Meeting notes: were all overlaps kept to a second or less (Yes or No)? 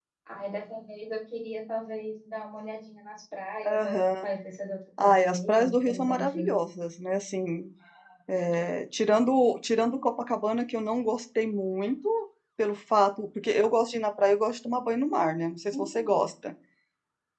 No